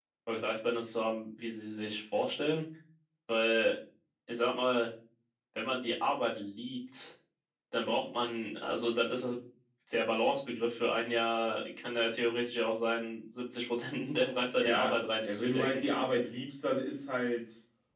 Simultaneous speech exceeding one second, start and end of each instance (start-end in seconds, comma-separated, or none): 14.6-15.8